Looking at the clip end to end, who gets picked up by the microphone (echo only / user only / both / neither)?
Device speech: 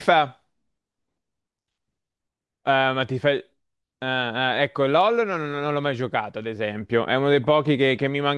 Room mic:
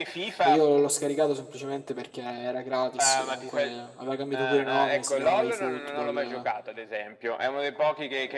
both